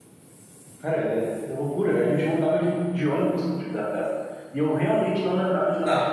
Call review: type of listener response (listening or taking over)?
taking over